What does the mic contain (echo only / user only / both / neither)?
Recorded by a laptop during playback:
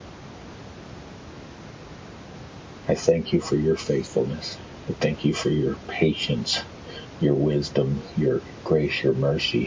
user only